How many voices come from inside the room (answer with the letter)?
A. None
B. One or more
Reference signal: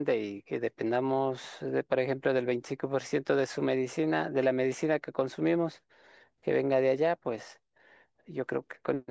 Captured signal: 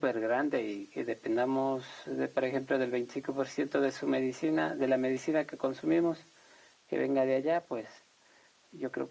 A